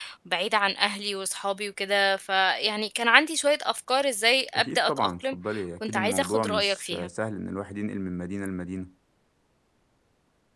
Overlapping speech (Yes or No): Yes